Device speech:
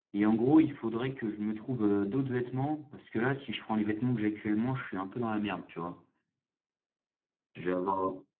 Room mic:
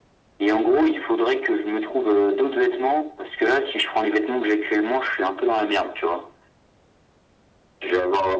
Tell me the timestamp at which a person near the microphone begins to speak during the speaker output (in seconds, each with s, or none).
none